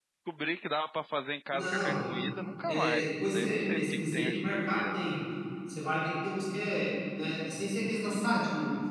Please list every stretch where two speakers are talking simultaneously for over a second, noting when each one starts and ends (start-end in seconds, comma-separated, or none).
2.7-5.0